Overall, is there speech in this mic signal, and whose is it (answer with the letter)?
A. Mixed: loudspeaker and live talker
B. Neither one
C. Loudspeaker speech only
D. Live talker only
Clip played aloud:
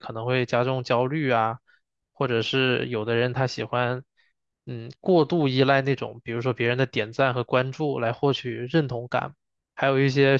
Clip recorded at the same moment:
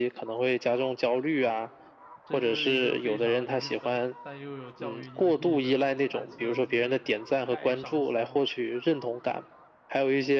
A